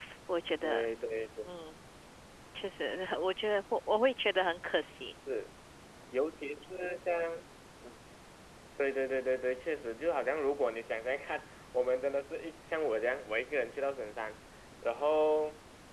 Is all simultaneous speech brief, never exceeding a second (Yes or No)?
Yes